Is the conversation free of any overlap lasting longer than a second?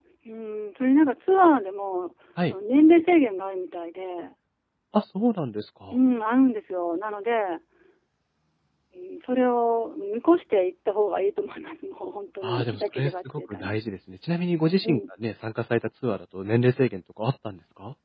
No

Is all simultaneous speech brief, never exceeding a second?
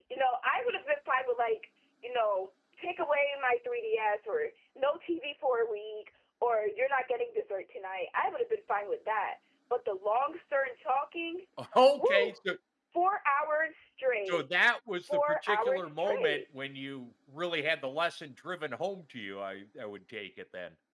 No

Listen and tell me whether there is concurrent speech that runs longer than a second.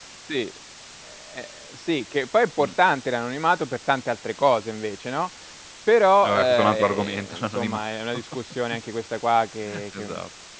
Yes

